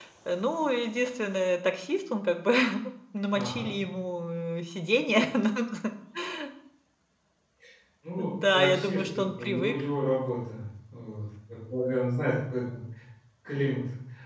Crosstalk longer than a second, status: present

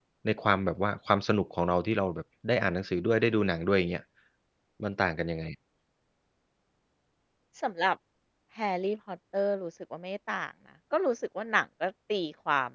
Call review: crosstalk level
none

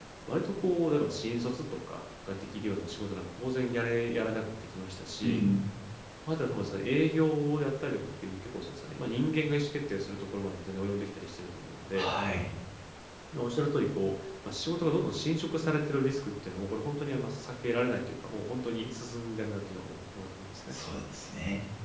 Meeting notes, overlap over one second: none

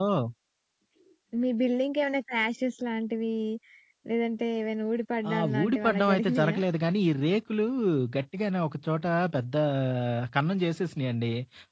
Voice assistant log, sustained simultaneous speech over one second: present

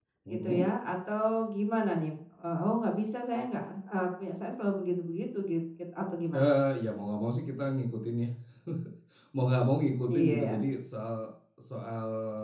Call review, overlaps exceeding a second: none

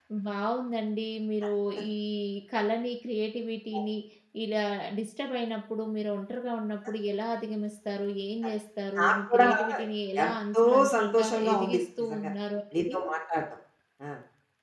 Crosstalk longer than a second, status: present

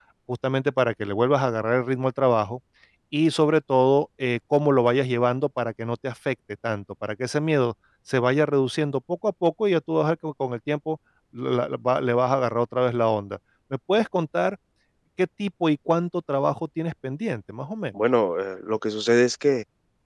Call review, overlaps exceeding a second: none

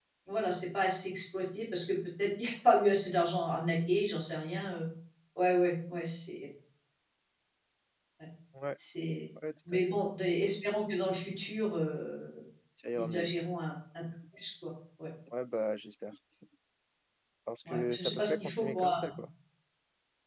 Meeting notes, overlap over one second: present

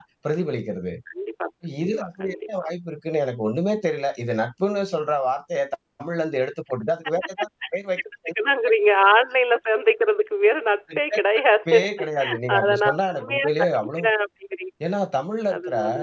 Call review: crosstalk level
present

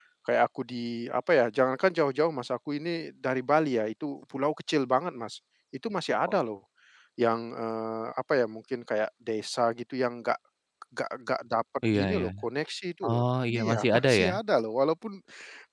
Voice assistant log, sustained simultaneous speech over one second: present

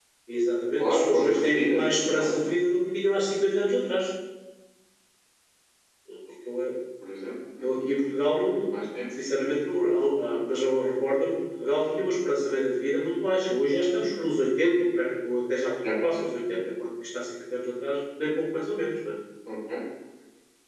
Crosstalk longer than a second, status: present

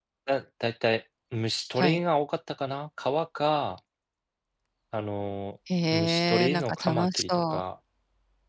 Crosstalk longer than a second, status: present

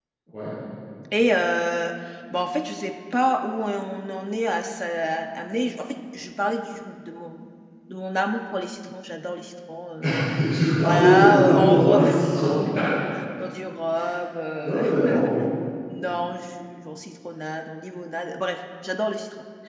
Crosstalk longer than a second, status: present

